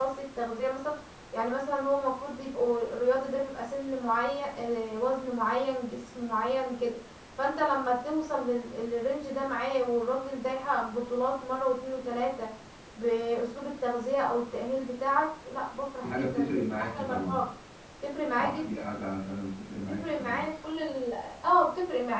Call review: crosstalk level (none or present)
present